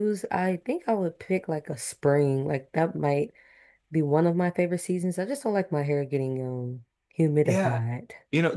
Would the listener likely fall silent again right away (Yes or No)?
No